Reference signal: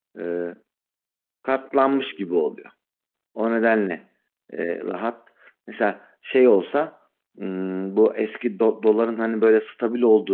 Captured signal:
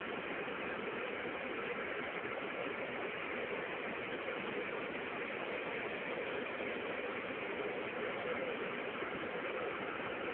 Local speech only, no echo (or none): none